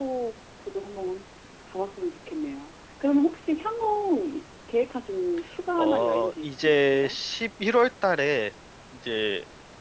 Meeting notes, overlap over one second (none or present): present